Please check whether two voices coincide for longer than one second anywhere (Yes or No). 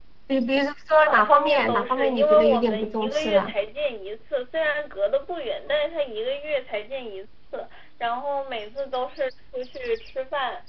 Yes